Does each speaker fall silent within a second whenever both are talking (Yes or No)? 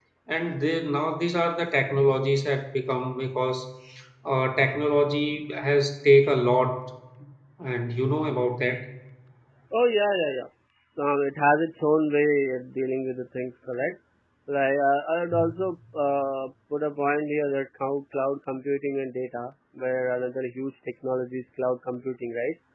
Yes